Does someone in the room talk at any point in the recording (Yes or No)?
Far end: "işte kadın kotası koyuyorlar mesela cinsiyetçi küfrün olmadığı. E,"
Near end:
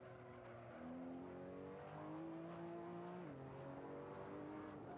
No